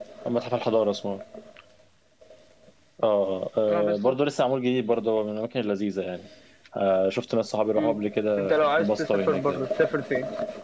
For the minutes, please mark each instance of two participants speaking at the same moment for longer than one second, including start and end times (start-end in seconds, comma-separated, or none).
8.4-9.7